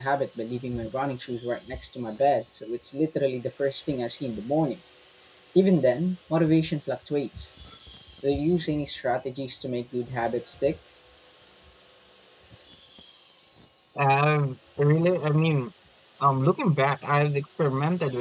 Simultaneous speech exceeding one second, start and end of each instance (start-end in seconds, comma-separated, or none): none